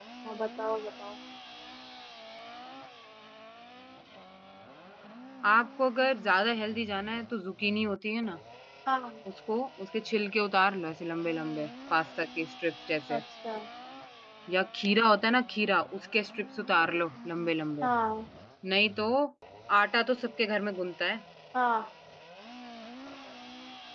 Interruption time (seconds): none

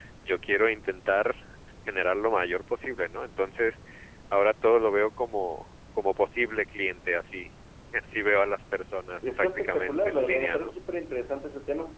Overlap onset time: 9.2 s

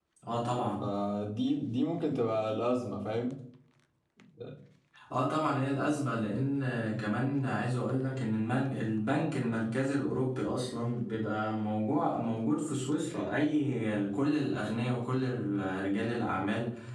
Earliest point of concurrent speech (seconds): none

